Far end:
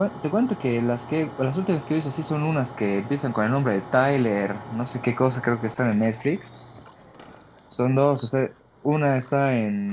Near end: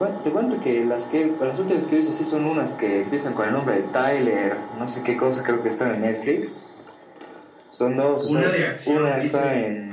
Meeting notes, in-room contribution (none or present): present